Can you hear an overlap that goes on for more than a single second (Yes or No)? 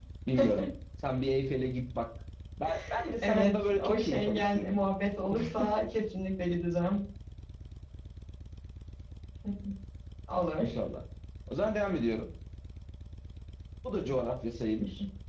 Yes